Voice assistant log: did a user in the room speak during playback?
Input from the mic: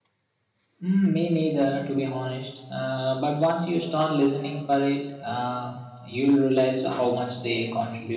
Yes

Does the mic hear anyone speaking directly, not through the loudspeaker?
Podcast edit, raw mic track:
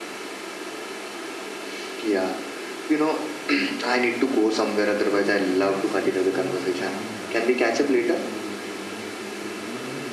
Yes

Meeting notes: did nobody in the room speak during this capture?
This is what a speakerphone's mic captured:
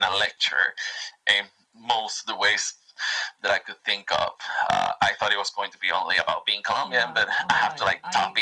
No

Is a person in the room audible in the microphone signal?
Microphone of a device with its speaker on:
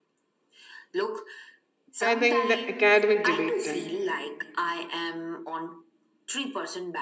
Yes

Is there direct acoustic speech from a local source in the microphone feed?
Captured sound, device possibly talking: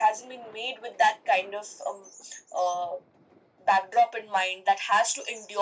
No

